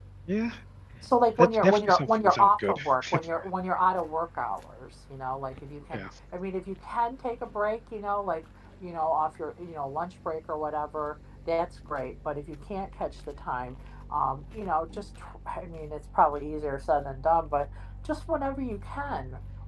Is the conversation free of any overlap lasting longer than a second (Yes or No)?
No